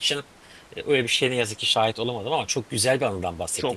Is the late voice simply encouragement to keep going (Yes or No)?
No